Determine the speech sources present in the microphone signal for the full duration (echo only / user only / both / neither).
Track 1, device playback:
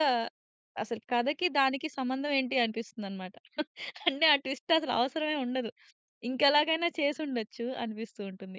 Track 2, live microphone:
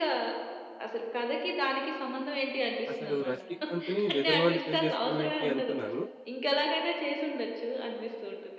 both